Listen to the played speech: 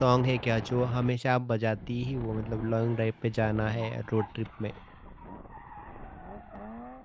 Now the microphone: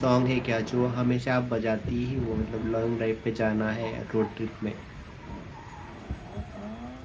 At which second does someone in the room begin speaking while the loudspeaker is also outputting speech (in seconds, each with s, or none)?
none